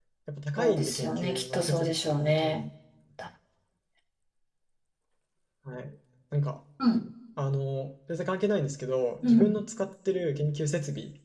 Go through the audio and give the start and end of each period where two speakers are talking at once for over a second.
0.6-2.6

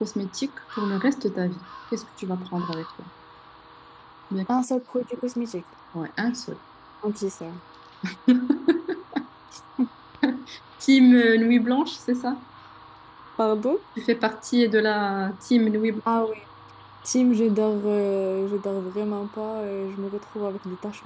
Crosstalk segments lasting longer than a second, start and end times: none

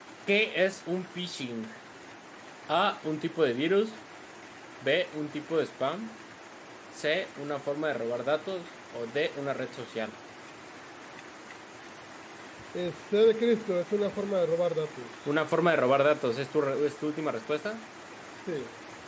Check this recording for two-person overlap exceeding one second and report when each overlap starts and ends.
none

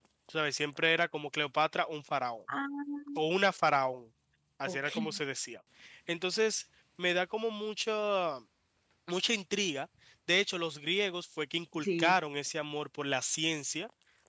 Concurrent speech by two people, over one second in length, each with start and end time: none

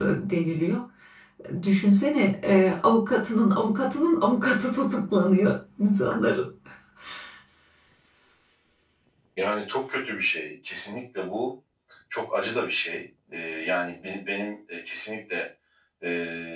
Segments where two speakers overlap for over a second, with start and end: none

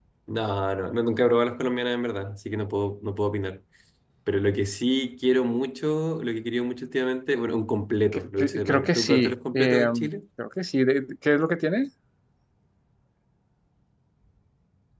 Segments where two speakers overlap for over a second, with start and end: 8.1-9.9

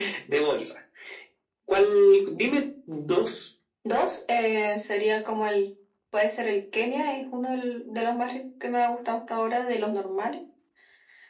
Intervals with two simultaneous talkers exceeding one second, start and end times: none

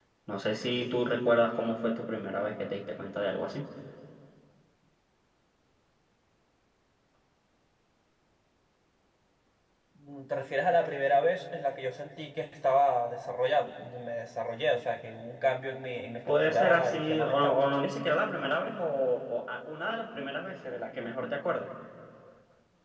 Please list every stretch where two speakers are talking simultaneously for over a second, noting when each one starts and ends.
16.3-17.6

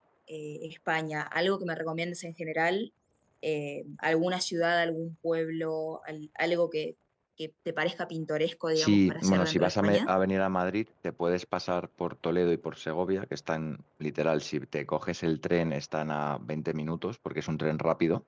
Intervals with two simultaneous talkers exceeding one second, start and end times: 8.8-10.1

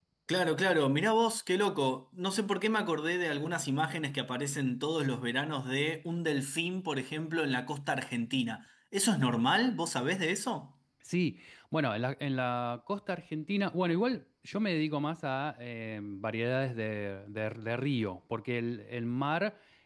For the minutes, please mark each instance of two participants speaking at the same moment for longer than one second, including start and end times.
none

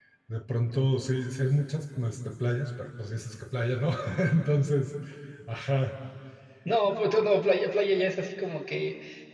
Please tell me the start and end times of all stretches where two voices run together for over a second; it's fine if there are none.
none

